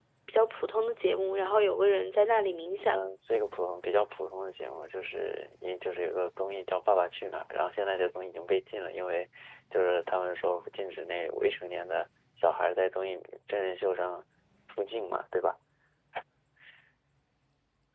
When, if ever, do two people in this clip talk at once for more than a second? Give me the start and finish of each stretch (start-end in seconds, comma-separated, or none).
none